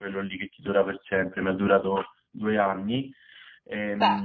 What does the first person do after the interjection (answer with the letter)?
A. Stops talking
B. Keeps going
B